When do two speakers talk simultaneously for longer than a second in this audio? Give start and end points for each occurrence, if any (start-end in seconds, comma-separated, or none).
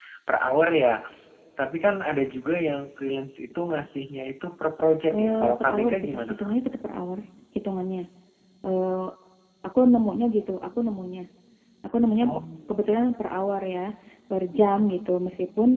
5.1-6.4